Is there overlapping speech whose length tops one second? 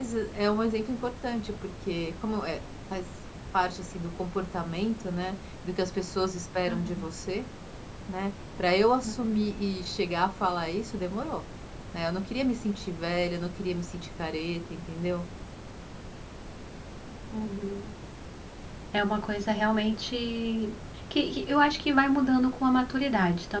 No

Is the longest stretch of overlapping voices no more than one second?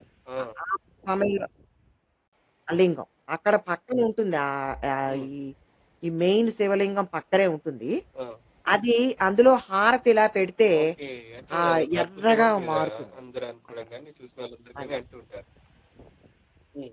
No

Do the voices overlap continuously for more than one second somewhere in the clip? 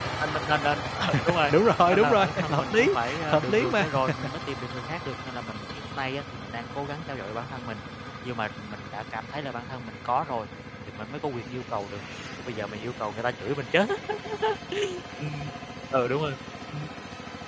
Yes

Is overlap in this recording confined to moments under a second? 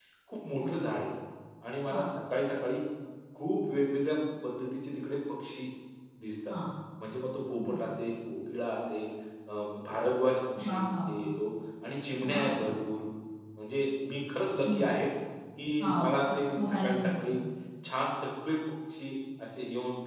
No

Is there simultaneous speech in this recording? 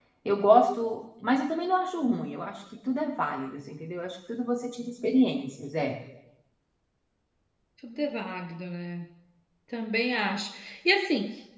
No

